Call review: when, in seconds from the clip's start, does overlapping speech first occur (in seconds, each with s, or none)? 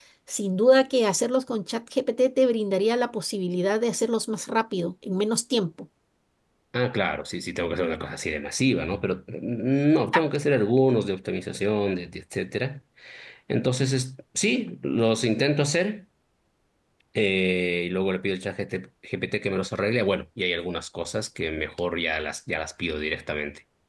none